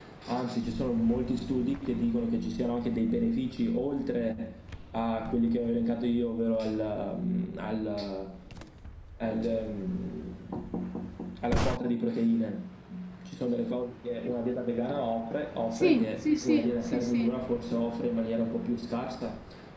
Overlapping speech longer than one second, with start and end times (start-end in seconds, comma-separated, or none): 15.7-17.3